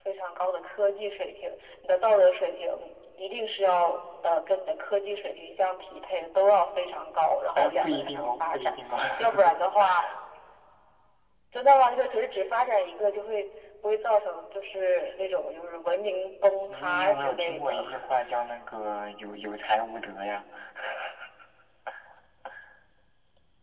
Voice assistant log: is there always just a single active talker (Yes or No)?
No